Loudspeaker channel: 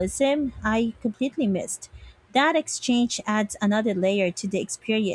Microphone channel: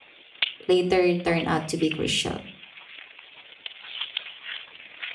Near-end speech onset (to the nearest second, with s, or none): 1 s